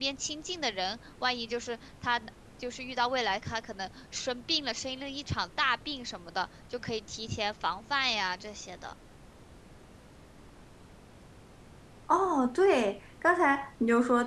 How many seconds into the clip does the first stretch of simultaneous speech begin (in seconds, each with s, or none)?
none